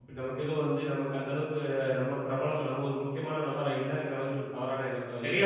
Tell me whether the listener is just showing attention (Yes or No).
No